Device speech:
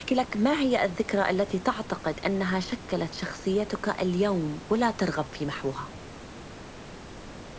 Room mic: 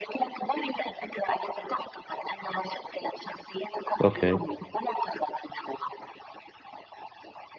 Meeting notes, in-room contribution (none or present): present